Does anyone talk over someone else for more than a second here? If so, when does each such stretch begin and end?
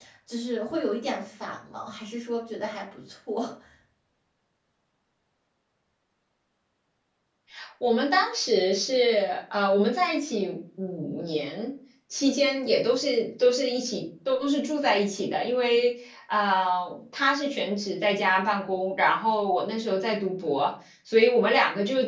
none

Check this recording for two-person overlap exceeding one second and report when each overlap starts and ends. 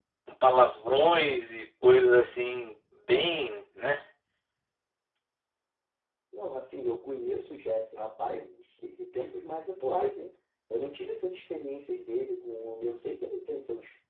none

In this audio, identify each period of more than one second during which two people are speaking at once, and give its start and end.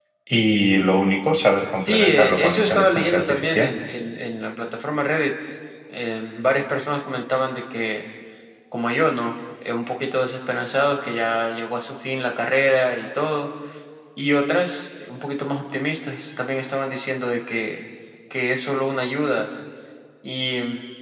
1.9-3.7

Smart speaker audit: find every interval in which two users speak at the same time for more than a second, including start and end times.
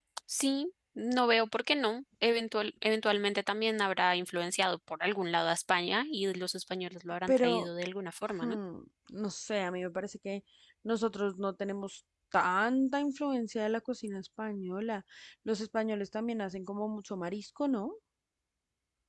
none

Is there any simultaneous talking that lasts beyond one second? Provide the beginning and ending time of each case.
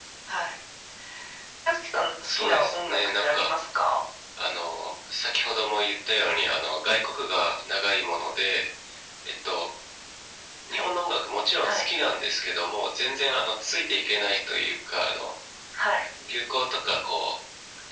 2.3-3.5

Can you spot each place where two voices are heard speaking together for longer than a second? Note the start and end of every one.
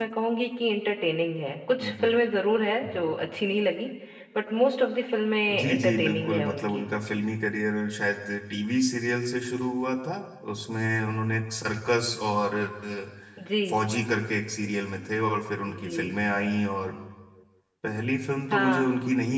5.6-6.9

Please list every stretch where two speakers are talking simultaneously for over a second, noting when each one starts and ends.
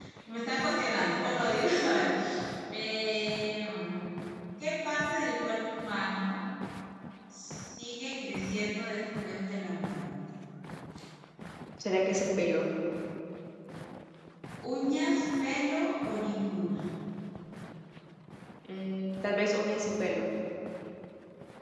none

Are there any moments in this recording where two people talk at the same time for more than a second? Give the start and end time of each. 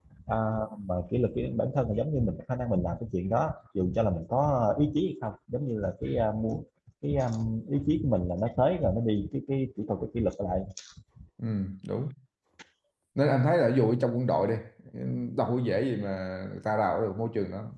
none

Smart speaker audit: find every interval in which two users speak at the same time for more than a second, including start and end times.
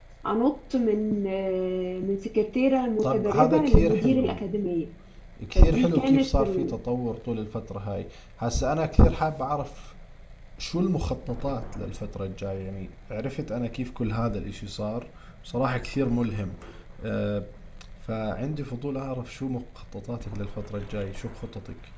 3.0-4.5, 5.5-6.8

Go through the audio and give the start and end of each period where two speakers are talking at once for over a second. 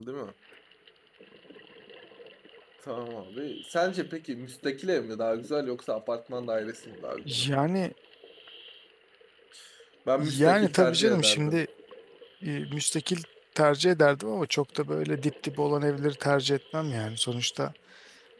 10.2-11.6

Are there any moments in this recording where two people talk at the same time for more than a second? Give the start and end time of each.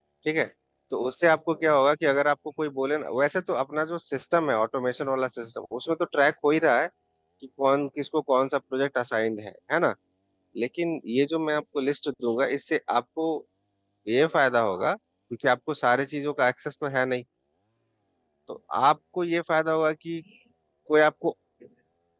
none

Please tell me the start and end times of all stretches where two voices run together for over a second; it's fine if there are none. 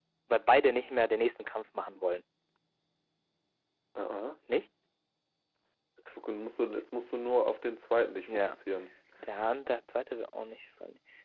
none

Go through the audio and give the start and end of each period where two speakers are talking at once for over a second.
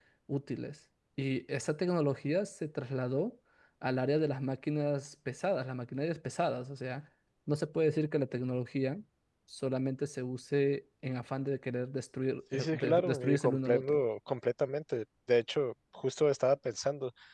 12.5-14.0

